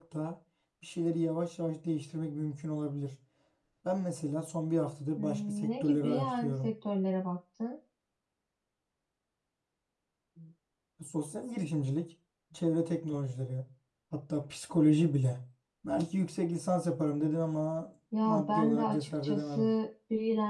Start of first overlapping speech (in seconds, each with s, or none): 5.2 s